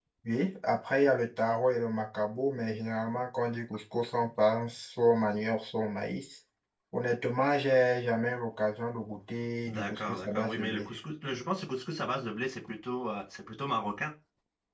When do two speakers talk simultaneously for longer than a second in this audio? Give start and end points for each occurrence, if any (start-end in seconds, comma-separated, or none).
9.7-10.9